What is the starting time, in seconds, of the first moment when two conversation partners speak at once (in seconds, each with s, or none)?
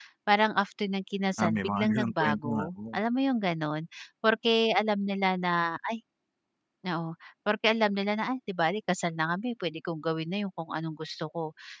1.4 s